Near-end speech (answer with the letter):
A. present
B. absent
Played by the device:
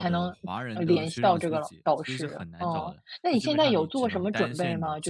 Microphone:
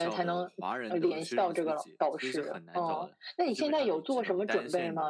B